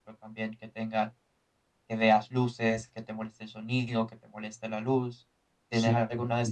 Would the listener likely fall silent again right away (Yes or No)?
No